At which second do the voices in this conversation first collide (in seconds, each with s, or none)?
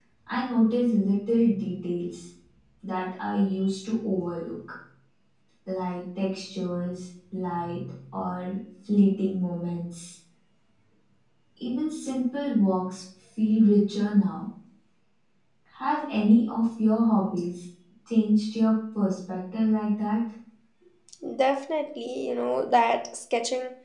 none